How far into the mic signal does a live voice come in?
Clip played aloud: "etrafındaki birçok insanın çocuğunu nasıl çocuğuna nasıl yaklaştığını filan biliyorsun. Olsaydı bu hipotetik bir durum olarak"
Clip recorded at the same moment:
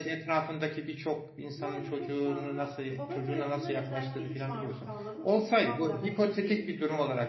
1.6 s

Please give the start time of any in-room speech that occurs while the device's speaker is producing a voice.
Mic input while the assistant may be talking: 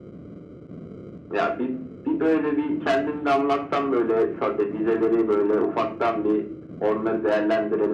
none

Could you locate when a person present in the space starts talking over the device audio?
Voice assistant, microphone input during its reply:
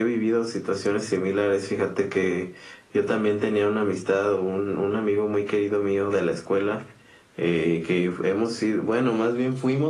none

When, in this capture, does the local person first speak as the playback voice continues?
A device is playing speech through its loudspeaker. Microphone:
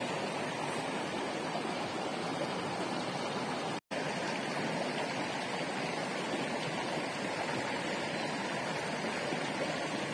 none

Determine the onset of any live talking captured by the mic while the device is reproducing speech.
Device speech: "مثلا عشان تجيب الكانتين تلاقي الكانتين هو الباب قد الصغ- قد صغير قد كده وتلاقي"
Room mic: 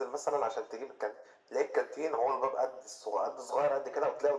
none

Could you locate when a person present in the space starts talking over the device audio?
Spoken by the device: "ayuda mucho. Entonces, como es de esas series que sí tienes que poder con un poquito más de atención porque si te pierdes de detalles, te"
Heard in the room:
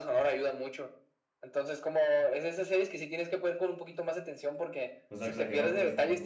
5.1 s

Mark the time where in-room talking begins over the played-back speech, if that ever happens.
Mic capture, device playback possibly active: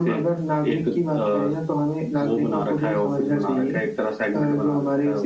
none

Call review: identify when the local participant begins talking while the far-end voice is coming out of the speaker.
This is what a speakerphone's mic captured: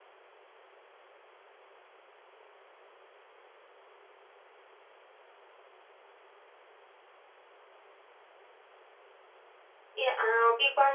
9.9 s

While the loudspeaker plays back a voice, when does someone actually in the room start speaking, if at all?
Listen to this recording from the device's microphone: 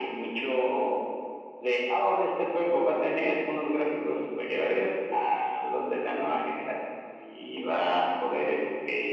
none

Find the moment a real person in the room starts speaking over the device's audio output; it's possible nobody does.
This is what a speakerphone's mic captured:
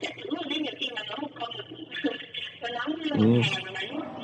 3.1 s

